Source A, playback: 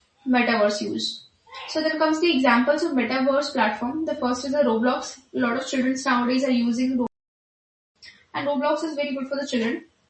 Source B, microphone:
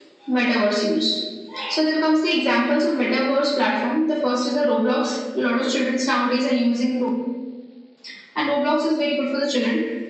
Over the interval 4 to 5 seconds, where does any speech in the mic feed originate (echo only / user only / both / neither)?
echo only